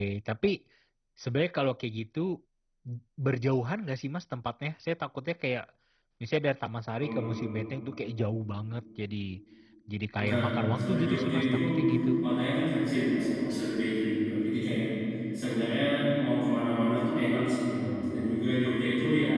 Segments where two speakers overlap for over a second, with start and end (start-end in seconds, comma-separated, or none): 10.2-11.6